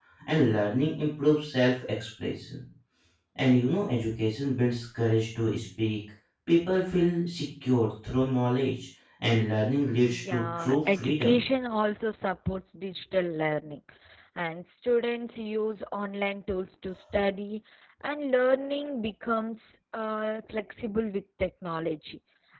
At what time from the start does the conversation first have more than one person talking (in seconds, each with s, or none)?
10.1 s